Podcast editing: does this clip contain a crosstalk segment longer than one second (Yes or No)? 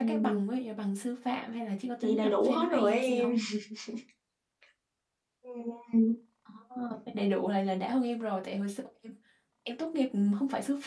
Yes